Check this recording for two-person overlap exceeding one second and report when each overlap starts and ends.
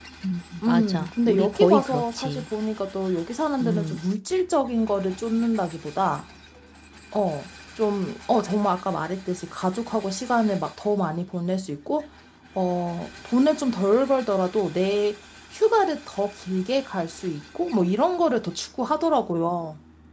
0.7-2.4

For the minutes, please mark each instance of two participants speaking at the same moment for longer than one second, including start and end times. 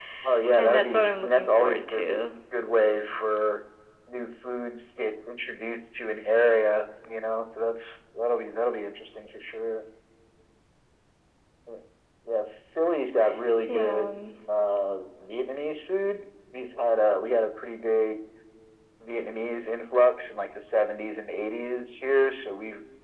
0.6-2.0

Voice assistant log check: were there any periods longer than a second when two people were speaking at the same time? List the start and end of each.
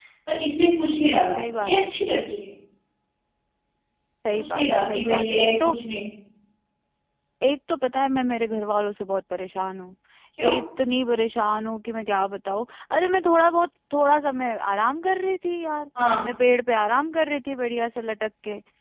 4.3-5.7

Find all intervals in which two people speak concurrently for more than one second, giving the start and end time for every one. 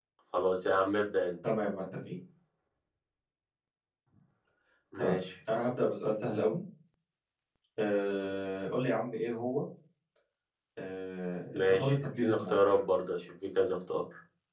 11.5-12.8

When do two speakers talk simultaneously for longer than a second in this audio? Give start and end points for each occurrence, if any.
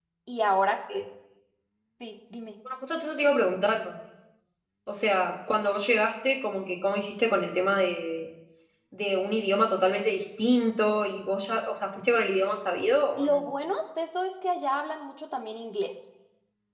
none

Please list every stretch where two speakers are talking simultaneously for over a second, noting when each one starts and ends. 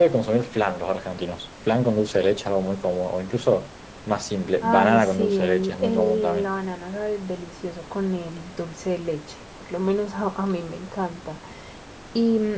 4.6-6.5

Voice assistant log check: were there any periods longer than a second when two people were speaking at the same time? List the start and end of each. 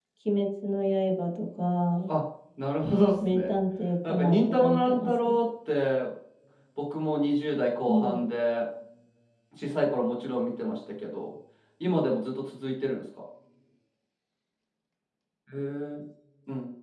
4.0-5.3

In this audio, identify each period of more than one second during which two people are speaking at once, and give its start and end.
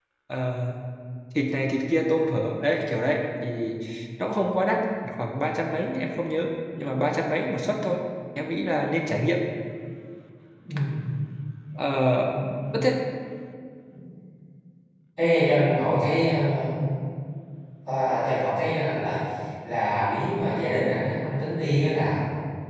none

